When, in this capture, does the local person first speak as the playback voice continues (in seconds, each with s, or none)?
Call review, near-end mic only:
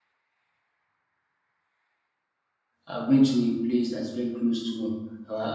2.9 s